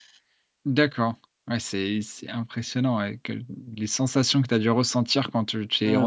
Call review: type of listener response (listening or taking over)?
taking over